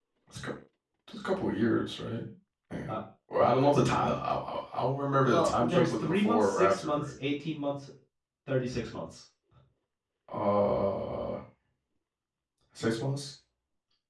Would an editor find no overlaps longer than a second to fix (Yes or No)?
No